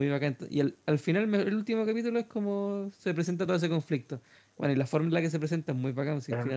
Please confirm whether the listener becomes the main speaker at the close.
Yes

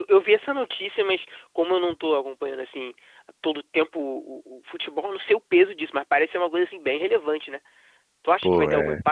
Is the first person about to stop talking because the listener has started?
No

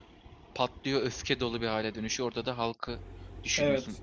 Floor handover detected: No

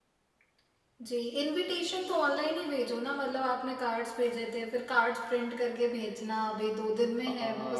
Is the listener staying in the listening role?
No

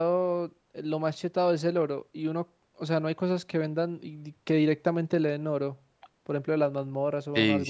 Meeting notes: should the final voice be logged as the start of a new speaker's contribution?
Yes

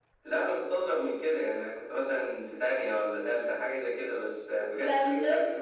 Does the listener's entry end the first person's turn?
Yes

